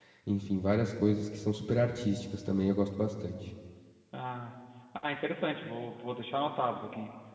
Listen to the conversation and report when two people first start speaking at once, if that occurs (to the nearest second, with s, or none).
none